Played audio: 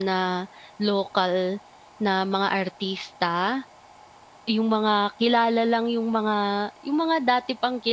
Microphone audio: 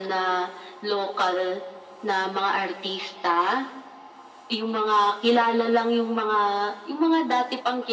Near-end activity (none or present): none